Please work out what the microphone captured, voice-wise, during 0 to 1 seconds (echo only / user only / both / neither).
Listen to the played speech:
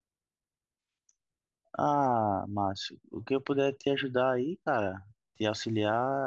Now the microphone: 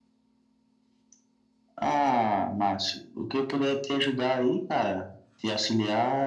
neither